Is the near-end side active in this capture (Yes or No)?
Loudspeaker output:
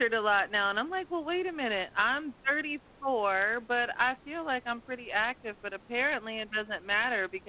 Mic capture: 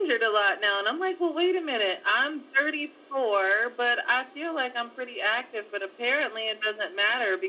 No